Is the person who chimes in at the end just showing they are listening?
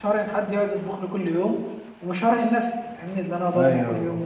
No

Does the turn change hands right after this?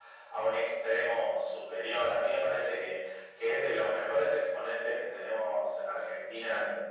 No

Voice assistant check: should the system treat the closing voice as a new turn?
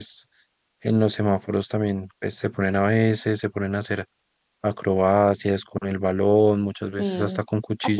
Yes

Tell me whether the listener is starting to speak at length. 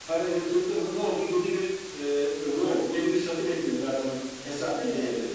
No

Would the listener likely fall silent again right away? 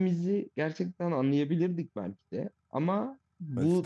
Yes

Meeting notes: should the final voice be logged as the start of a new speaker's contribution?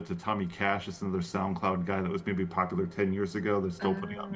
Yes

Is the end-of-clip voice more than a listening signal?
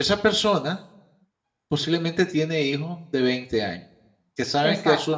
No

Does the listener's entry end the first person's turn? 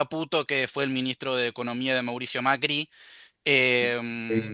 No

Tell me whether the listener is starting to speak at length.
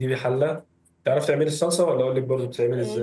Yes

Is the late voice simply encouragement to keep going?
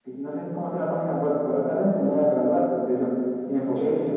Yes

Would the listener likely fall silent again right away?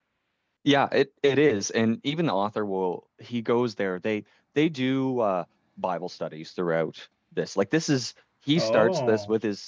Yes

